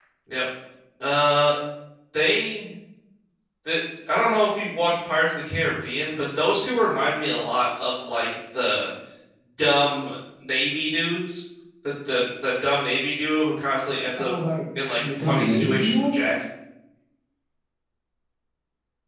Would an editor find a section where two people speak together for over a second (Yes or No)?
Yes